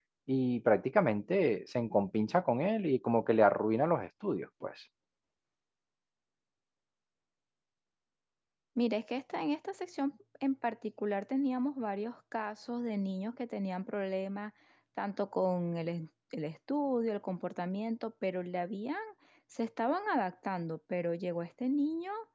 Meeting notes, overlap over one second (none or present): none